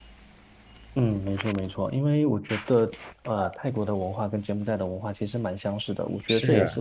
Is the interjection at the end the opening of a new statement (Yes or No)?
No